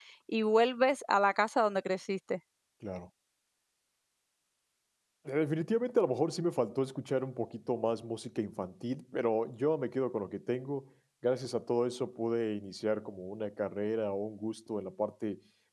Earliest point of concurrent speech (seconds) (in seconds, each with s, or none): none